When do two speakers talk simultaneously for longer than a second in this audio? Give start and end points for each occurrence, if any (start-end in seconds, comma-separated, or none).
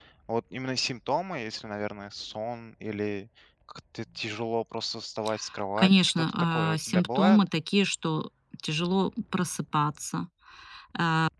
5.8-7.4